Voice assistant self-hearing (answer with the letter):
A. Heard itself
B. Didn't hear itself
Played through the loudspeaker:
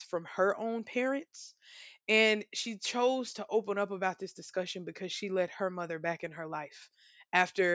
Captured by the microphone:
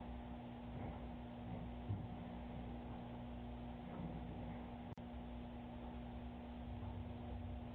B